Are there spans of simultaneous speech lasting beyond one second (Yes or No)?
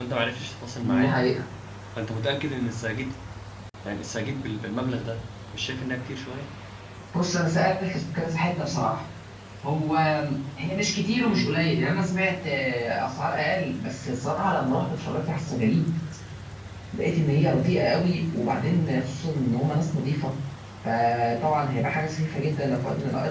No